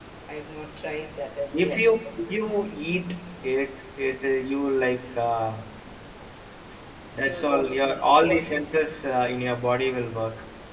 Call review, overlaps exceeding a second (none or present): present